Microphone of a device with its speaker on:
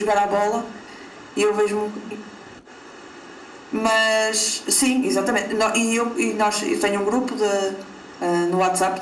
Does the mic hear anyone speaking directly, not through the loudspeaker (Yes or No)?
No